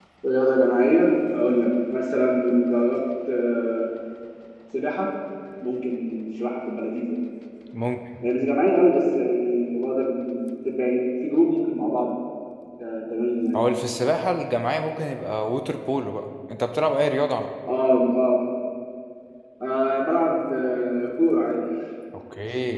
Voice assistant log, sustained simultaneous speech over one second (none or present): none